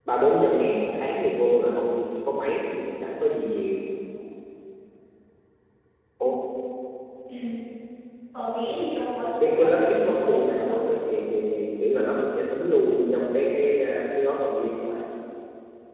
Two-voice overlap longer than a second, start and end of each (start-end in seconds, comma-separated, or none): 9.4-10.8